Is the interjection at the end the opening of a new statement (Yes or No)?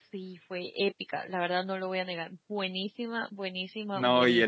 Yes